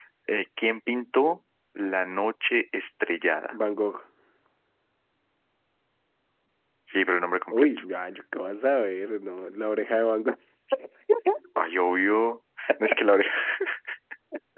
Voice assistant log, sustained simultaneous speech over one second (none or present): none